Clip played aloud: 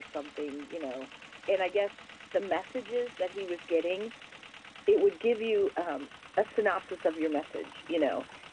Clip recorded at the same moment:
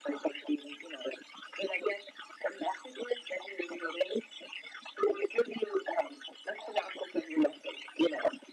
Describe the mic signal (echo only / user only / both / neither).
echo only